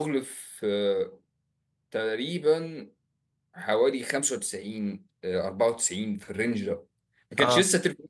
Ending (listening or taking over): listening